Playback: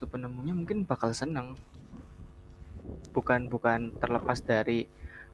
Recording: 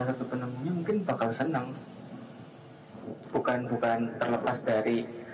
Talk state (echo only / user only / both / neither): echo only